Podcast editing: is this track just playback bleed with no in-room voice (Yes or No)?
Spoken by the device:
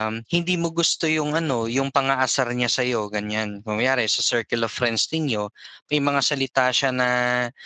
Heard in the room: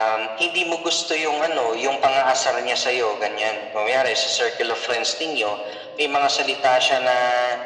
Yes